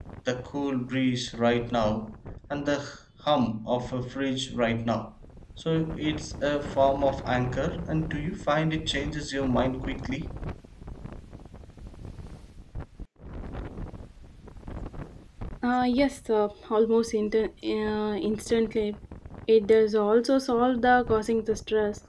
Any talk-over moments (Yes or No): No